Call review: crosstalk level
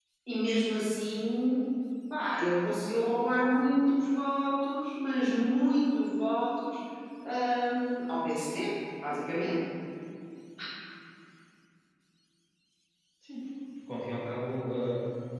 none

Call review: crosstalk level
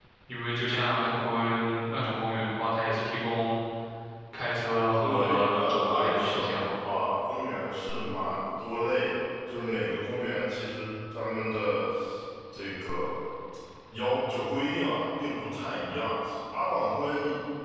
present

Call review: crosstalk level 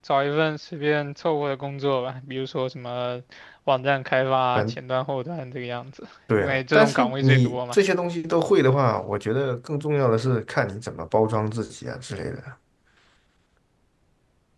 present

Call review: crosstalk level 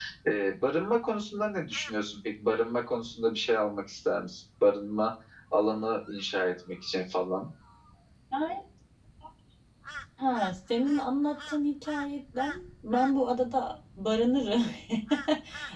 none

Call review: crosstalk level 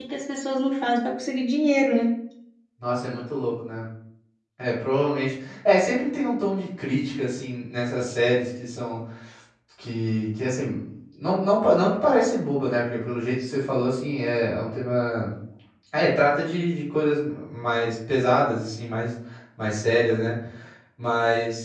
none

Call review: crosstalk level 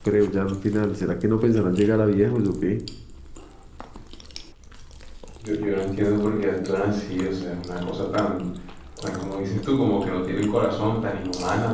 none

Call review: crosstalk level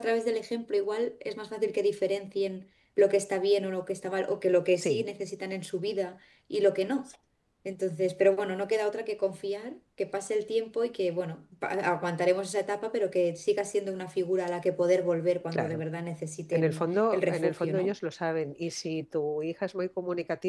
present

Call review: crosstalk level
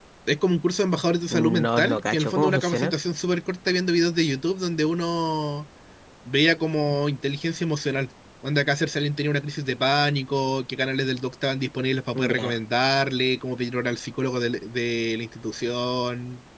present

